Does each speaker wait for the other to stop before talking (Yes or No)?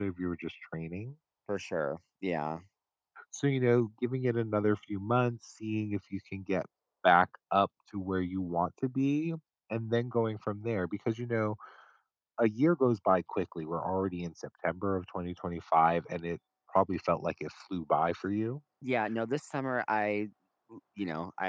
Yes